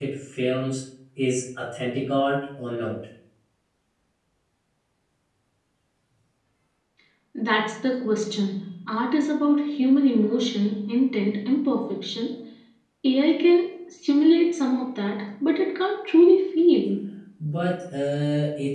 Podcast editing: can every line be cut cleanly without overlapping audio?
Yes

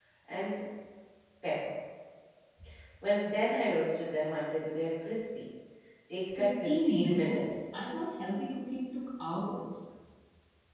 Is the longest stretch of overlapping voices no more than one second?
No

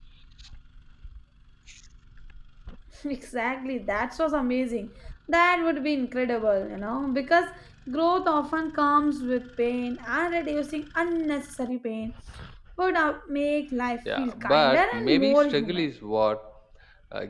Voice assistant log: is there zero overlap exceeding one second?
No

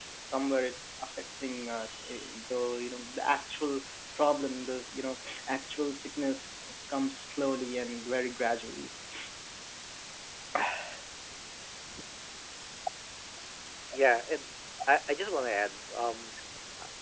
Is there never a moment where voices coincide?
Yes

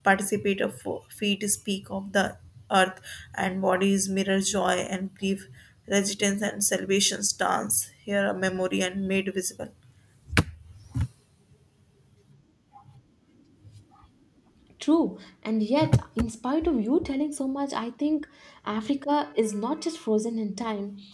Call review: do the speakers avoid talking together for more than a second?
Yes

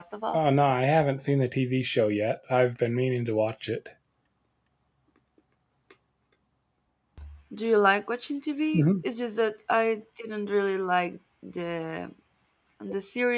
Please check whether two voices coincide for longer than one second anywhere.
No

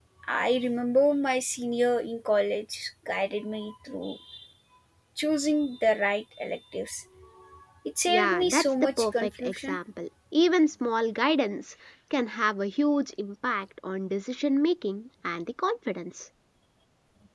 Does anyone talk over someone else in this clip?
Yes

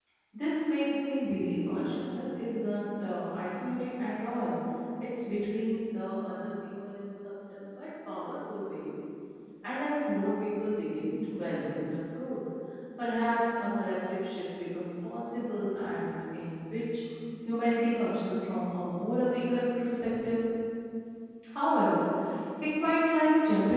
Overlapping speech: No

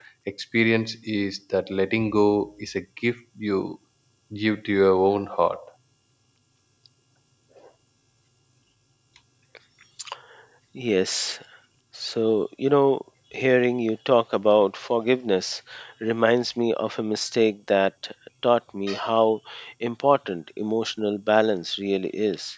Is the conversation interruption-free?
Yes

